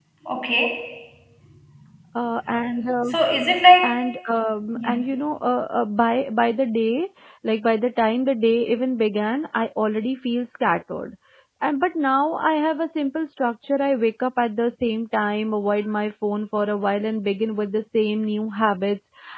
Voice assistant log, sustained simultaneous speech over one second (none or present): none